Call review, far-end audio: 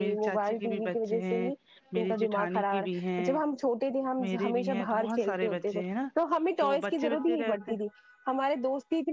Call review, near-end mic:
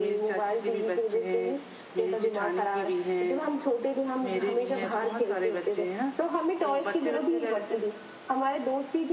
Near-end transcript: none

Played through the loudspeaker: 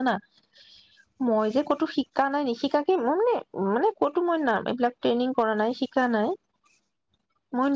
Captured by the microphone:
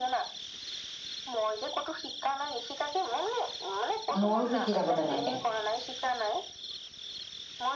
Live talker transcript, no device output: ময়ো শিকি থাকো তেনেকে

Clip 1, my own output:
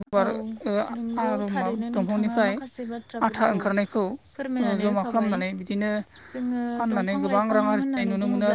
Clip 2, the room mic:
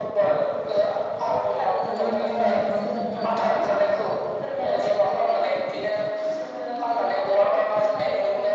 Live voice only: जोबोर मोजां खालामो दंफां लाइफांआ।

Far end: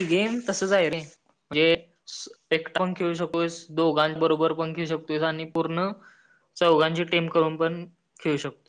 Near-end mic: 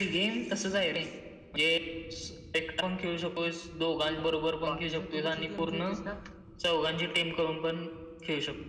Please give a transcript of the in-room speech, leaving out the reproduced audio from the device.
बाकीचं तूं कुंठली गेम खेऴतीस कां

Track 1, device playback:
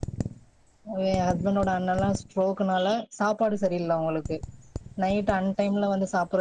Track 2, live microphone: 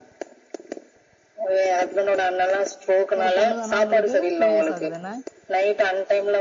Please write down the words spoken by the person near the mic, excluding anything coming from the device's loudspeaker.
ஒரு பொண்ணு தானா உங்களுக்கு டூ இயர்ஸ் ஆகுது என்ன

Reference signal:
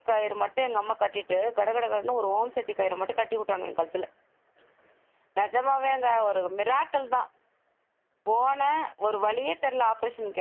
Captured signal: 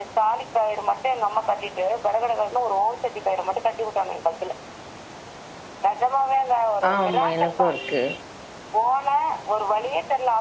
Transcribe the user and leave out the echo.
ஆமா எனக்கு இருக்கு

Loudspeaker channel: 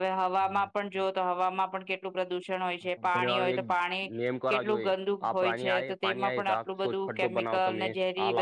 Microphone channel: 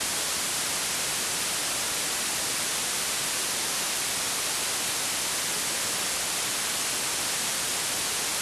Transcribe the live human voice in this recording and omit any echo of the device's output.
none

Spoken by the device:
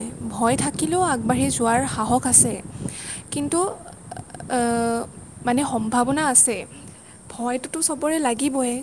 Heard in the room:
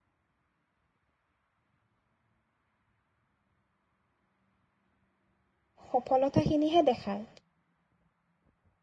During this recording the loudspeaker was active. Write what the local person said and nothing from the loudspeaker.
সফলতাখিনিহে দেখায়।

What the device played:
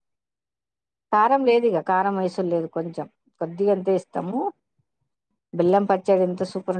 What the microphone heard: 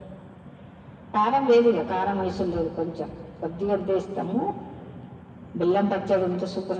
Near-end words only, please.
none

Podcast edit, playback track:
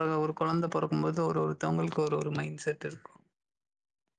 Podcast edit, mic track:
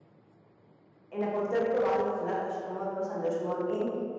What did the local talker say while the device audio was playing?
என்ன பொறுத்த வரைக்கு வாழ்க்க ஃபுல்லா கஷ்டமு இருக்கு சந்தோஷமு இருக்கு.

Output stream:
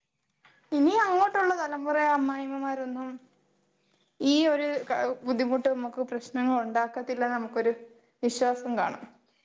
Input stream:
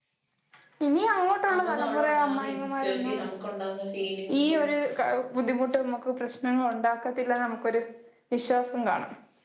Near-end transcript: നമുക്ക് അവിടെ ഉണ്ടാവുന്ന ഇൻസെക്യൂരിറ്റി നമുക്കുണ്ടാവുന്ന ഫീലിങ്സും

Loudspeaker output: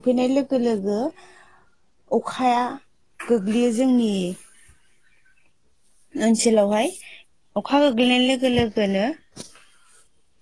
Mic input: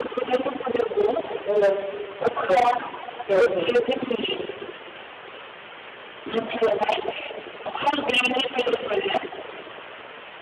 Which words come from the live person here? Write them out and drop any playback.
हेल' औ दे बुं

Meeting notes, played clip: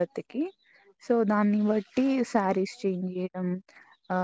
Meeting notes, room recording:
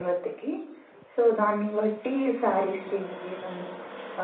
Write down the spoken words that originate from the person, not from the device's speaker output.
none

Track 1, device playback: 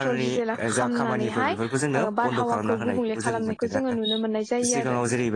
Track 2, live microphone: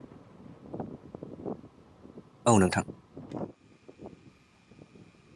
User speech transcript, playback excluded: औ नोंथां

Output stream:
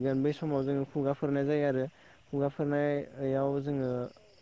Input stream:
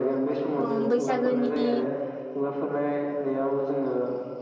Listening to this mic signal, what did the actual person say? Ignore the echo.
उम्म बैसागोनि

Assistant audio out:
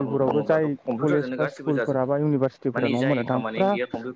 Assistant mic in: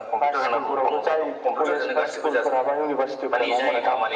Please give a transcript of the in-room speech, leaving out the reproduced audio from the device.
none

